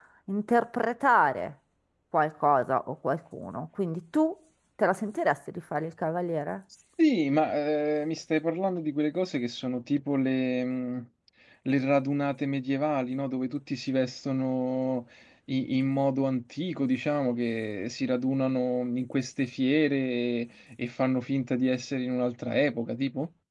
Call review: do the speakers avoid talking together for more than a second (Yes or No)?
Yes